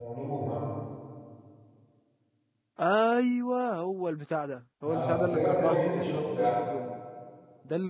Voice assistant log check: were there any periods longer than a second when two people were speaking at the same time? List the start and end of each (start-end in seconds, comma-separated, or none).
4.9-6.5